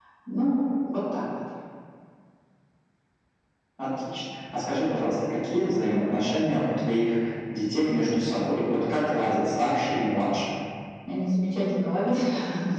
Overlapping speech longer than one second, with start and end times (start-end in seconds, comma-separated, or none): none